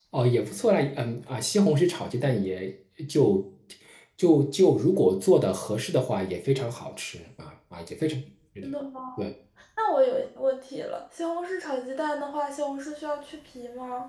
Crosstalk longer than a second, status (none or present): none